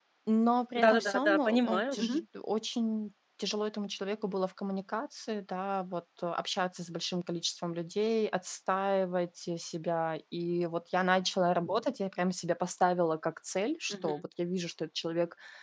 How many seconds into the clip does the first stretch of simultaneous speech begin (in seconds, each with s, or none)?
0.8 s